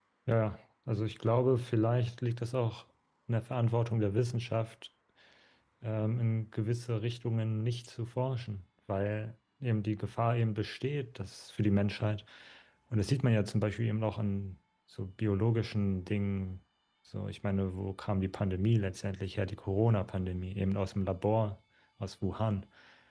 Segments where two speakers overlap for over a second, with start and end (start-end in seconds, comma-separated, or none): none